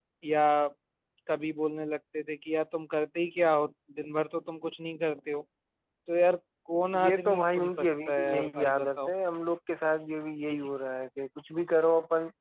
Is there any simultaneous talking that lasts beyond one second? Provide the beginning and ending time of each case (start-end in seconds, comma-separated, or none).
7.0-9.1